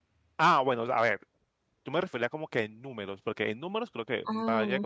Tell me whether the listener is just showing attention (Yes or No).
Yes